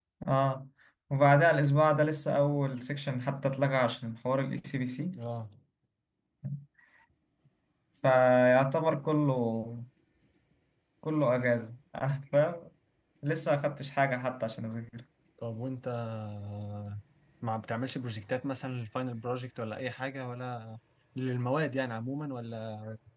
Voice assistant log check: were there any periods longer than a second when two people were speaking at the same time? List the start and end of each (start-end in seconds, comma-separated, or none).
none